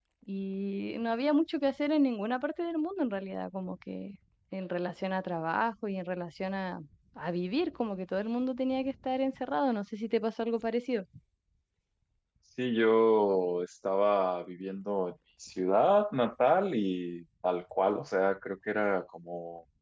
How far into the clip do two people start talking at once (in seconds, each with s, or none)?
none